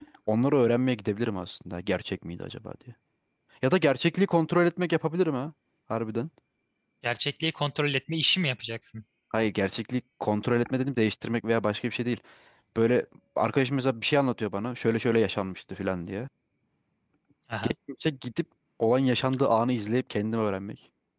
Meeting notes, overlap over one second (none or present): none